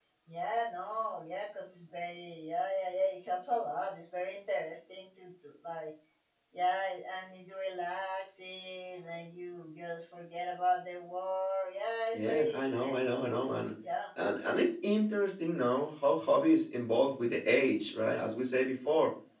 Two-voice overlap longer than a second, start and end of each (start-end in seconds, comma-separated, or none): 12.1-13.5